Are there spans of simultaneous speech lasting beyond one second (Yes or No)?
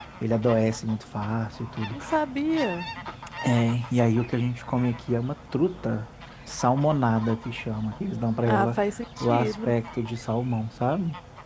No